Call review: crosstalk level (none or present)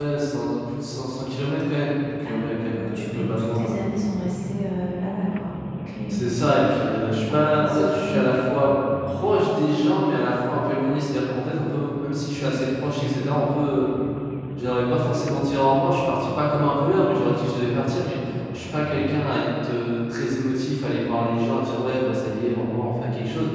present